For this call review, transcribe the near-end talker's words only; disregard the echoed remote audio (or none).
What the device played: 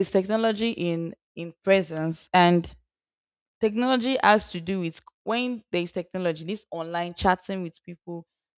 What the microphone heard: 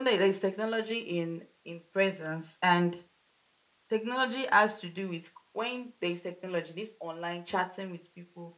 none